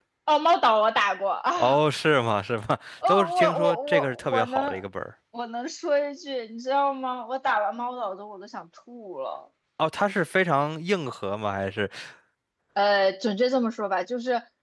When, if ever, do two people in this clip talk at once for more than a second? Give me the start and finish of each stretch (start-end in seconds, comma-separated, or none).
3.1-4.8